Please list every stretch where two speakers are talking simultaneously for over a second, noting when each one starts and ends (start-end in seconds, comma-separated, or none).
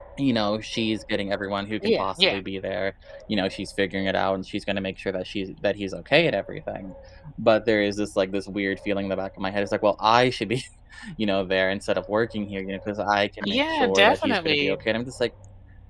13.4-14.8